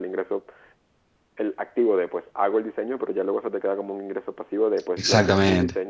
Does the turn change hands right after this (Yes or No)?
Yes